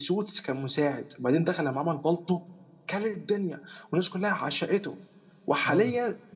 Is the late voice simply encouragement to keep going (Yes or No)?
Yes